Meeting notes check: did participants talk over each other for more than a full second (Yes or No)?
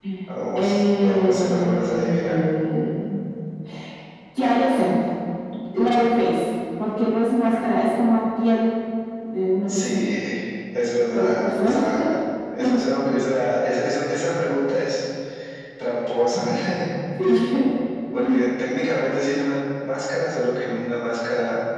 Yes